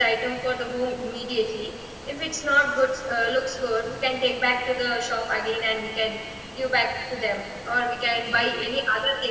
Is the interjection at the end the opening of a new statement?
No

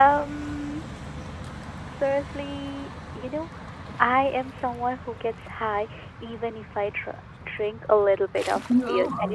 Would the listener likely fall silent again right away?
Yes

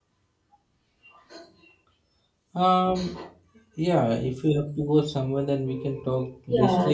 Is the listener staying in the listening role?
No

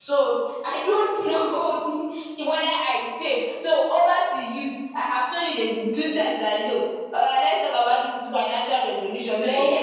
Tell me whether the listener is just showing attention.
Yes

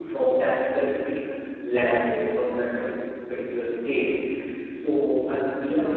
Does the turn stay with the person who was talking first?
Yes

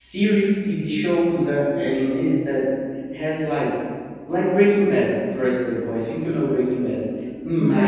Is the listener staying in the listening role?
Yes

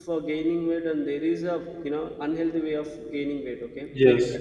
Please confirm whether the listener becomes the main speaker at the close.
Yes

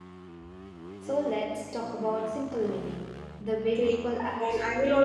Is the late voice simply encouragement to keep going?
No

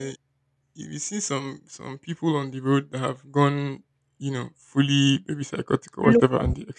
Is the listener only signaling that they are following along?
Yes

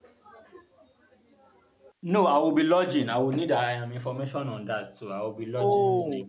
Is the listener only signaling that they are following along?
No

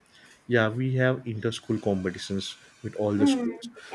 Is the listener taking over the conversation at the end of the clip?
Yes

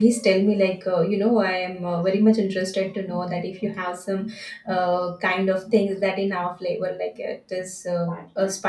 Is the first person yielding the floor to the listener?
Yes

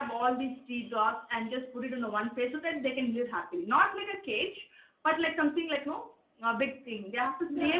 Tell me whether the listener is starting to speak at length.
Yes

